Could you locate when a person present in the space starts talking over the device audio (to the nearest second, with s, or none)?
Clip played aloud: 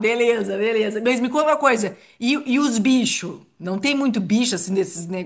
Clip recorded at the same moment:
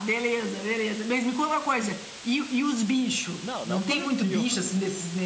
3 s